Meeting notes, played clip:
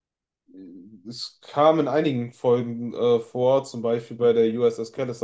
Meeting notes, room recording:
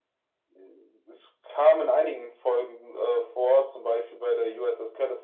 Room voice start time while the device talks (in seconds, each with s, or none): none